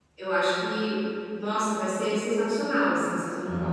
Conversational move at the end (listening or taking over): listening